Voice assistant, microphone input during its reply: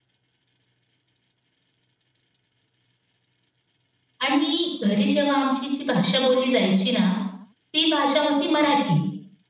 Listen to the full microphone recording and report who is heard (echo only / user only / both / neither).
user only